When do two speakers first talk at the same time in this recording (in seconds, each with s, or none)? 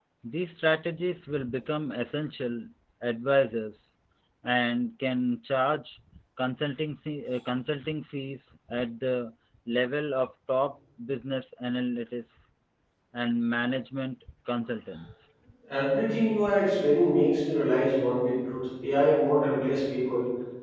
none